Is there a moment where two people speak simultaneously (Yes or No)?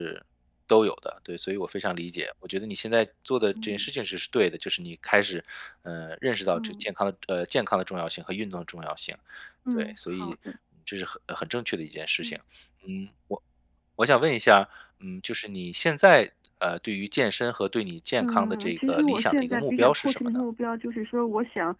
Yes